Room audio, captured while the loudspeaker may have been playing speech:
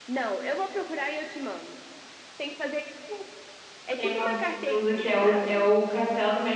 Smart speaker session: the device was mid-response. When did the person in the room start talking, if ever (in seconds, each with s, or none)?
4.0 s